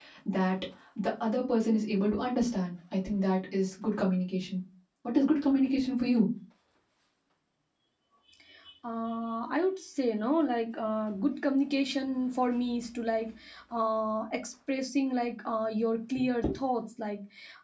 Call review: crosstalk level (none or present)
none